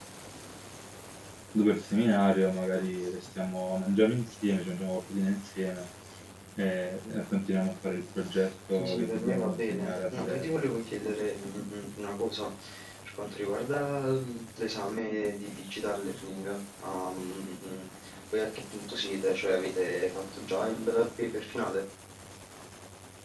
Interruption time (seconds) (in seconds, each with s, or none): 8.7 s